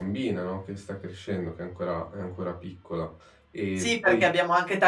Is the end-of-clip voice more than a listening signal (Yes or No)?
Yes